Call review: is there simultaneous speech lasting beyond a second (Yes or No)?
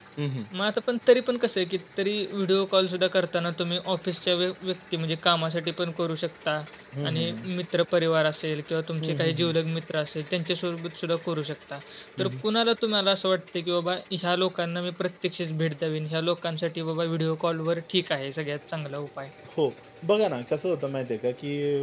No